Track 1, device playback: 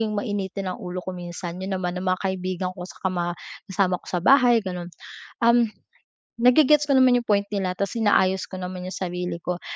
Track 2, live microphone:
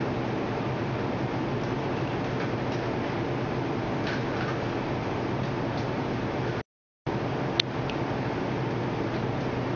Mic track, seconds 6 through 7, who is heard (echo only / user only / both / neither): neither